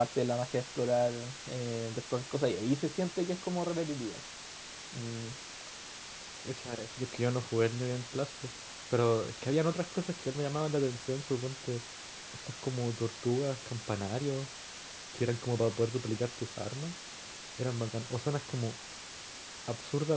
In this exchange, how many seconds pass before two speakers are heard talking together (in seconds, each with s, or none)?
none